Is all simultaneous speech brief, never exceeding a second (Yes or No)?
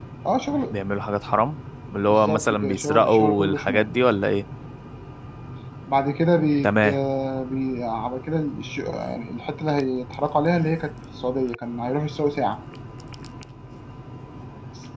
No